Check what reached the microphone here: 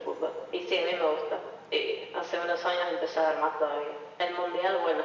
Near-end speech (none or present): none